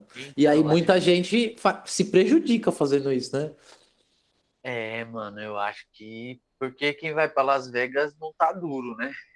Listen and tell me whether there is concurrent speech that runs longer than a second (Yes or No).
No